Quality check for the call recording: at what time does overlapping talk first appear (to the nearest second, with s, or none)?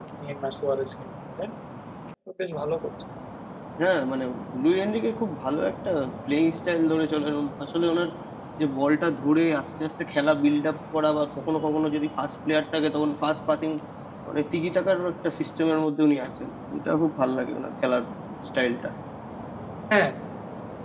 none